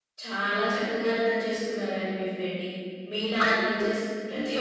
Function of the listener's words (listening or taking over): listening